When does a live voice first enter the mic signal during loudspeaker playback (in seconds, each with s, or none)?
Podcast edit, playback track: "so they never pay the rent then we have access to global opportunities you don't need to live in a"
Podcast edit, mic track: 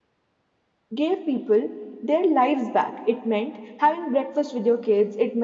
0.9 s